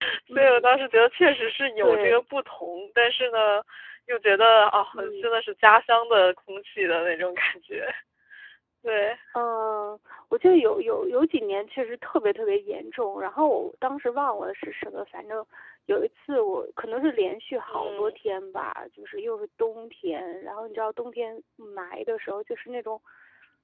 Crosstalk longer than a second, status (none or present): none